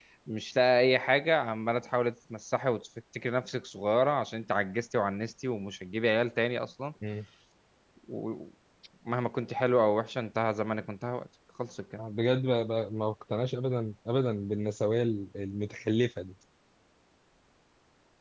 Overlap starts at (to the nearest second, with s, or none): none